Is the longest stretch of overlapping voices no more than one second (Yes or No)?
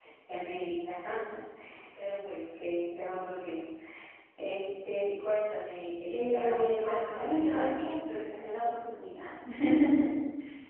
No